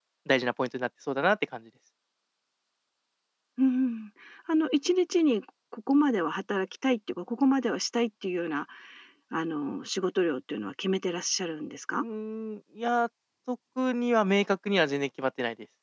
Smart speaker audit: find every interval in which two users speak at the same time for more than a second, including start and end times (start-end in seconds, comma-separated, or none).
none